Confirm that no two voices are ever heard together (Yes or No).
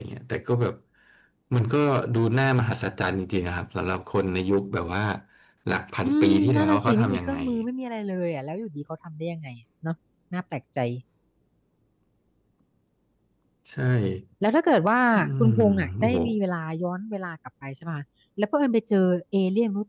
No